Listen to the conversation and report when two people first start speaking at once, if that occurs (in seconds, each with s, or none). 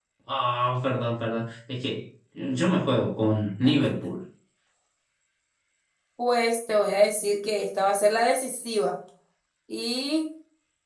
none